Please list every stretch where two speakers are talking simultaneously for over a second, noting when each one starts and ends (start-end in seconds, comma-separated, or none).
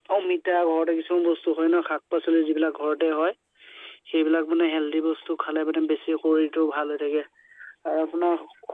none